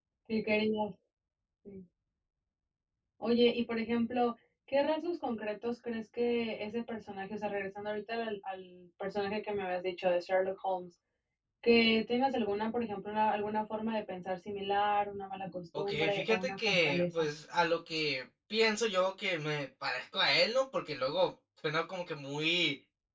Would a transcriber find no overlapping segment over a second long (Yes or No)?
No